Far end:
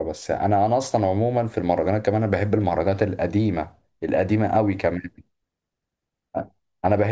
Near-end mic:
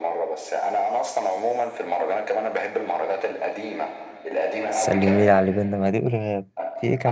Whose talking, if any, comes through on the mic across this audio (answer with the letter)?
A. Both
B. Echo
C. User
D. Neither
A